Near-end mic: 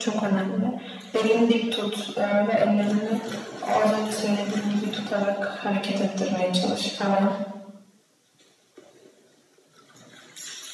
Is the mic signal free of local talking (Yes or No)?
Yes